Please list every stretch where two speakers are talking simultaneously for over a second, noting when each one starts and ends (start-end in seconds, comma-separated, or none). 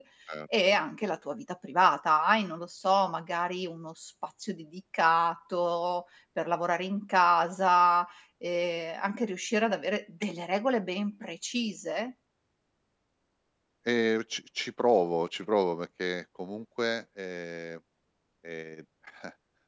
none